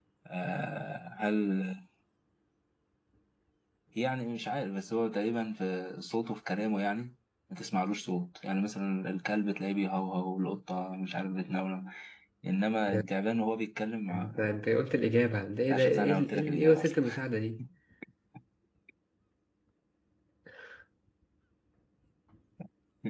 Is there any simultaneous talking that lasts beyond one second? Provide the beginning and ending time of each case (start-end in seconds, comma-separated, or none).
15.7-17.0